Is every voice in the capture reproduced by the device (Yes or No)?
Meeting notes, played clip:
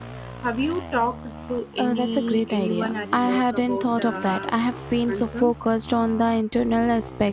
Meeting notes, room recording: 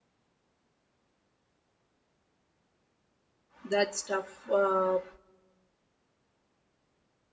No